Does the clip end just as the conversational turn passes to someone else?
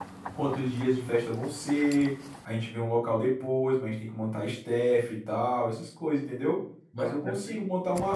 No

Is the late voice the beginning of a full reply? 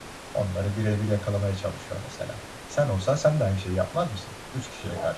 Yes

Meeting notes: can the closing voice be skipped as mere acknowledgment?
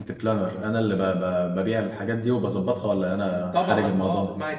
No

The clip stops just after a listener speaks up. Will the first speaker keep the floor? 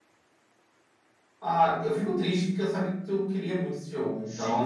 No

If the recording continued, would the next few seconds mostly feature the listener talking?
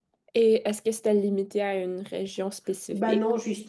Yes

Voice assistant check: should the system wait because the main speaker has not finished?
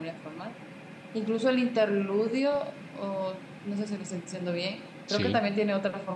Yes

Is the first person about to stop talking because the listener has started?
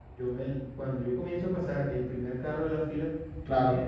No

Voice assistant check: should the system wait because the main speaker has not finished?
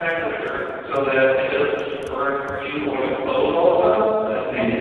No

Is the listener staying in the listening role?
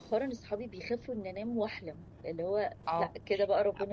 No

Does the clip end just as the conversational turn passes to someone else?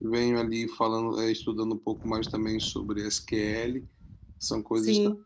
No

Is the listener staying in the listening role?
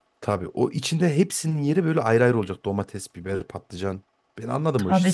No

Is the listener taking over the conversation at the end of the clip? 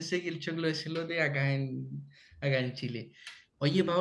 No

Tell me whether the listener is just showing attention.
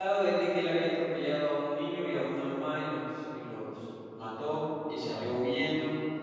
Yes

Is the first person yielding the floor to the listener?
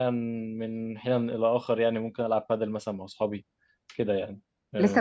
Yes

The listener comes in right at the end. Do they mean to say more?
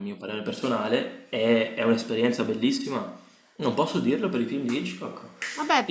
Yes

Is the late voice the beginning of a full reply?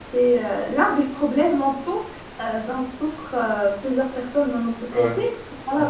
No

